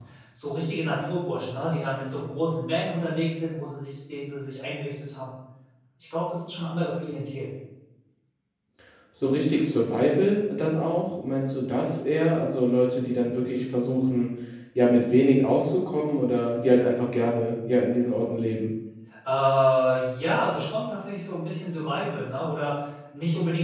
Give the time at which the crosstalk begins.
none

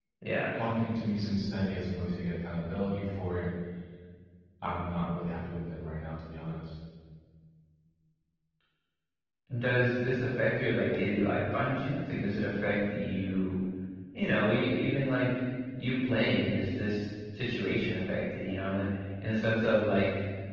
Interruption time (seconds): none

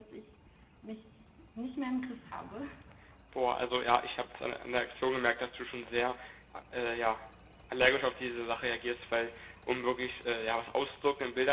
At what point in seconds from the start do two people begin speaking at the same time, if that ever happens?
none

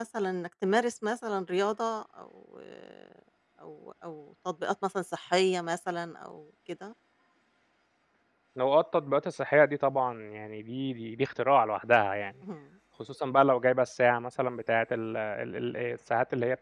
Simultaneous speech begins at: none

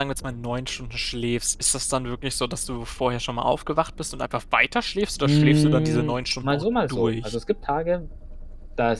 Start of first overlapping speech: 5.2 s

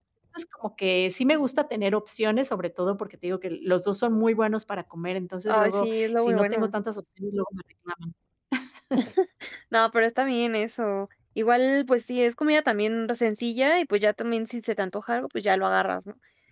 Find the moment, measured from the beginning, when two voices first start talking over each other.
5.5 s

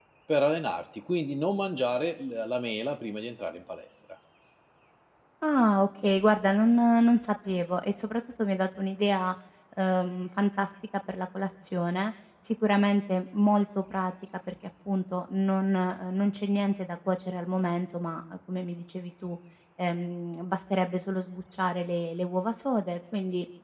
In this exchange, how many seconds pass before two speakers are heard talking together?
none

